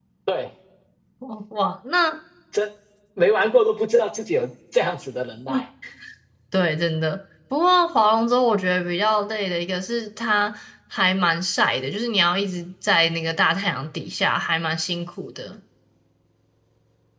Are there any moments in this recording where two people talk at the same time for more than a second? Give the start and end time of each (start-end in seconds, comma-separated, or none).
none